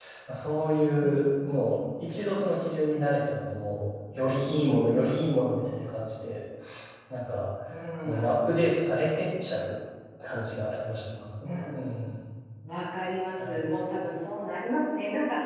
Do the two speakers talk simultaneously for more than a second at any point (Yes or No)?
No